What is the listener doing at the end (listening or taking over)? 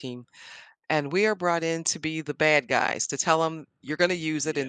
listening